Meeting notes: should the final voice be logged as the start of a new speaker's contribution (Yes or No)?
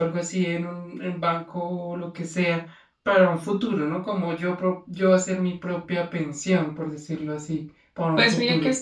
Yes